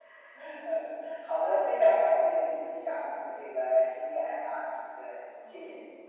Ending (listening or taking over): taking over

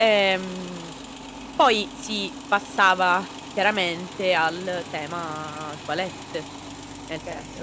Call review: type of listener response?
listening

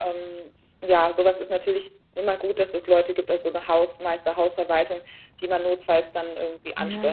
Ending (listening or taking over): taking over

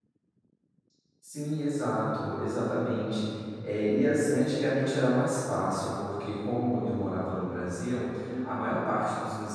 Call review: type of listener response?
listening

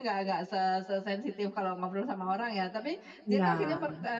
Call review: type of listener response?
listening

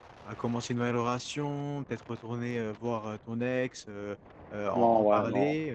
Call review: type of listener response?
taking over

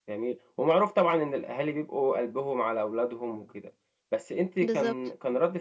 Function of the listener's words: listening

